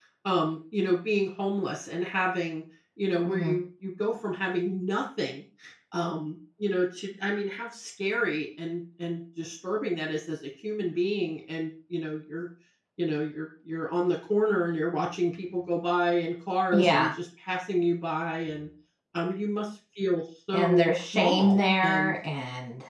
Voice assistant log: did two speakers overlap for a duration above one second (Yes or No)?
Yes